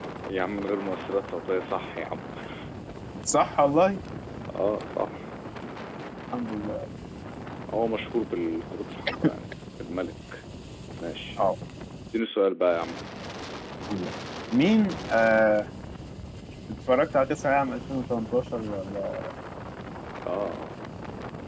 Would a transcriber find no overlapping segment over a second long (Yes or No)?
Yes